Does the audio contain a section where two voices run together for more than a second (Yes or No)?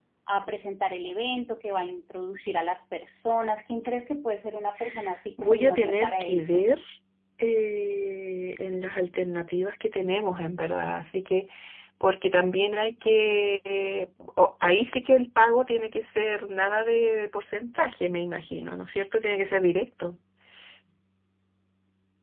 Yes